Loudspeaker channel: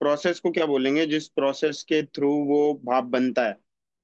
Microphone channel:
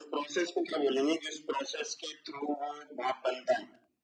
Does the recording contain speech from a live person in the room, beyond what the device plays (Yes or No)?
No